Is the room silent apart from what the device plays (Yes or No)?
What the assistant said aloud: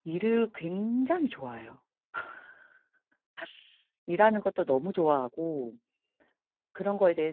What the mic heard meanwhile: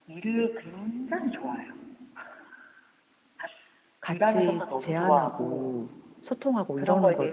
No